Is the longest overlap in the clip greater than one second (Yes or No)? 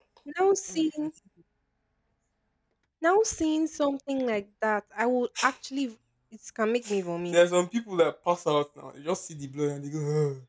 No